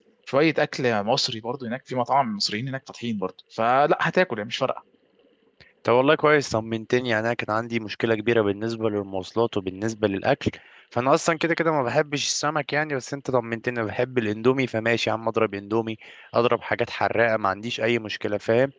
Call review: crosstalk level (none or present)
none